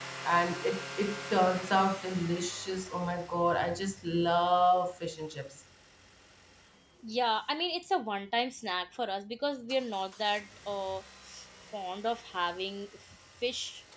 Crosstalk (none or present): none